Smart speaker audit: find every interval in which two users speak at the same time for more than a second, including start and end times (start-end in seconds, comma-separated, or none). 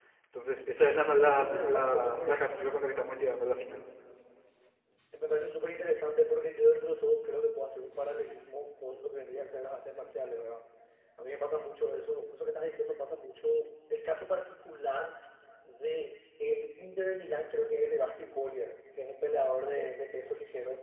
1.2-2.6